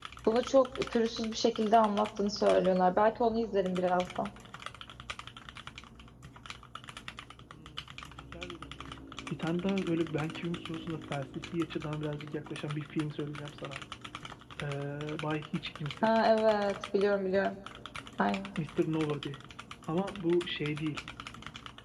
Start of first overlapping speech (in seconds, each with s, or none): none